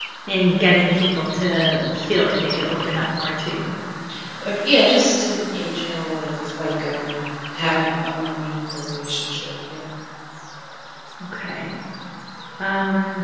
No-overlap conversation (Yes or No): Yes